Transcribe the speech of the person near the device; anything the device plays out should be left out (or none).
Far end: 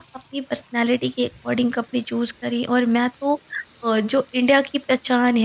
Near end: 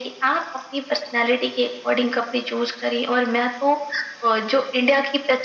none